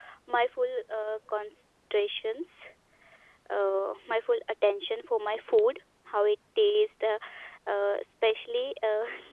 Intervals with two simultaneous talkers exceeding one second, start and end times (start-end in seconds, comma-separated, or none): none